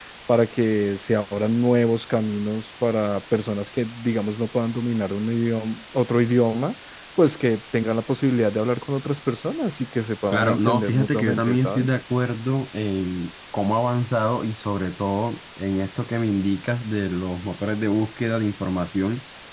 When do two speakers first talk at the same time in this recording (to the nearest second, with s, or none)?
10 s